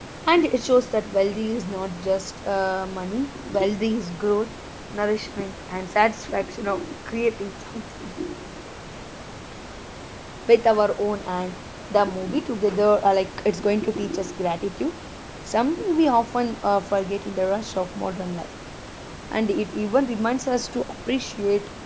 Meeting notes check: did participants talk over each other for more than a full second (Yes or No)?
No